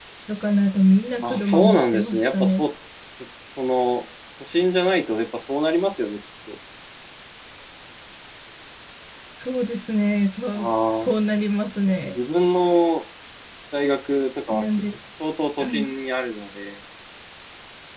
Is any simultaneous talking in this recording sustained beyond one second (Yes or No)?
Yes